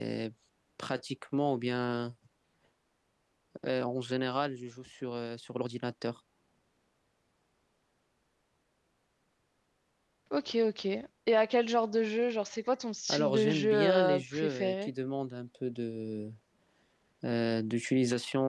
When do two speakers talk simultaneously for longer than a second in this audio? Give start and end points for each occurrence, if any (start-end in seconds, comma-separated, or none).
13.1-14.9